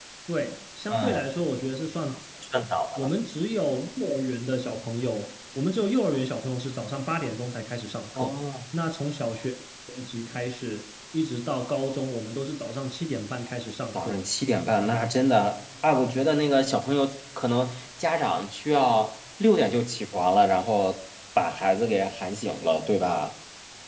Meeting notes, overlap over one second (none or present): none